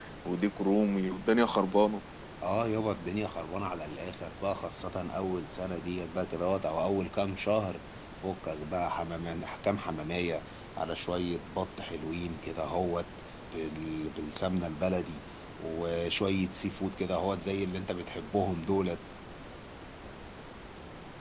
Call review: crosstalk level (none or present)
none